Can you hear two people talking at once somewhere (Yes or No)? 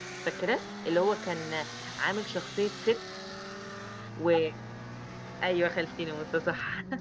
No